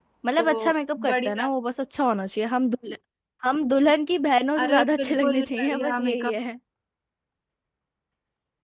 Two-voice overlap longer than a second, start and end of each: 4.6-6.4

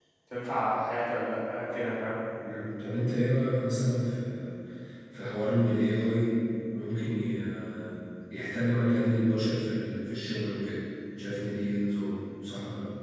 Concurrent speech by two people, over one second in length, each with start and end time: none

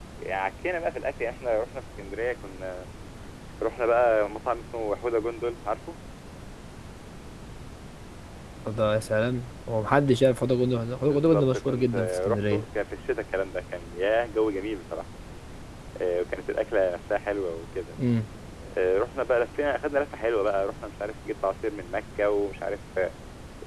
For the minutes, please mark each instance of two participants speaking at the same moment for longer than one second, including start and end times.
11.0-12.6

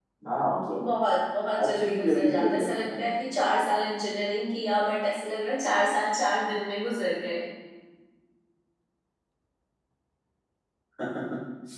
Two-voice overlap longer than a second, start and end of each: 1.6-3.1

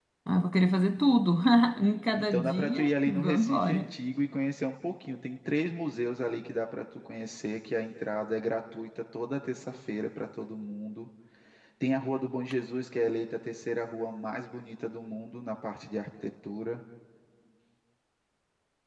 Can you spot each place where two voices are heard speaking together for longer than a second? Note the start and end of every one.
2.2-3.9

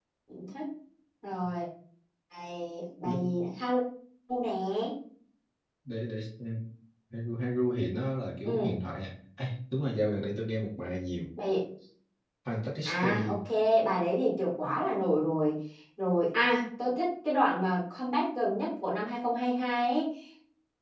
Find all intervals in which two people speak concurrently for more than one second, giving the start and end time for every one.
none

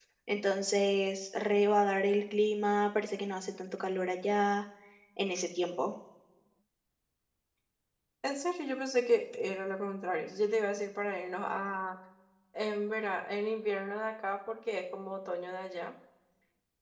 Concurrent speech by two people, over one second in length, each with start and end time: none

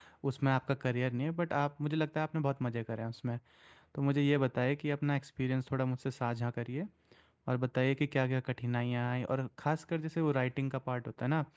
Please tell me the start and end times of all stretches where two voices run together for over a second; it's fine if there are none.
none

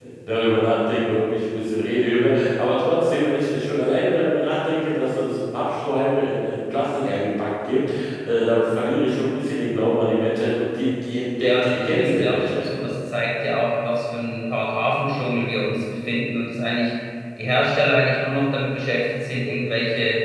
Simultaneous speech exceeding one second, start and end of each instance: 11.4-12.6

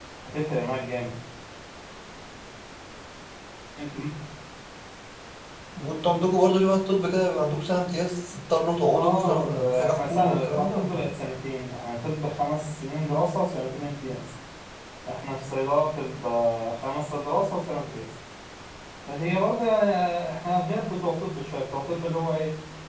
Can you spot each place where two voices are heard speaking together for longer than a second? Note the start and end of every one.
8.9-11.1

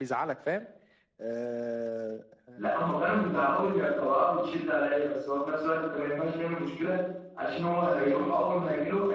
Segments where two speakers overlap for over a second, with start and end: none

